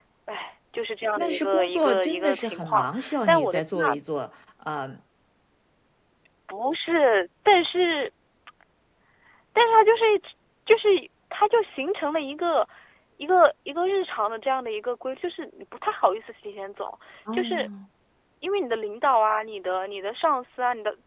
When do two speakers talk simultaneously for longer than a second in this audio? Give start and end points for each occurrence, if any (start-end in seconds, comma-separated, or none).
1.2-4.0